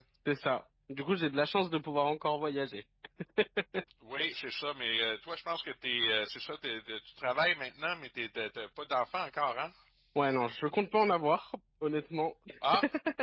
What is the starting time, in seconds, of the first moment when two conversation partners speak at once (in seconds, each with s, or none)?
none